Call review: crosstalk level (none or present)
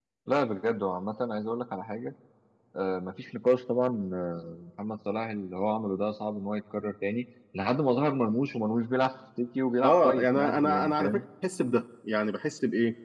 present